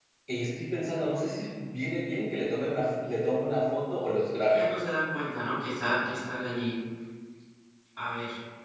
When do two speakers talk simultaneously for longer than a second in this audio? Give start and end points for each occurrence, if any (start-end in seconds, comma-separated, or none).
none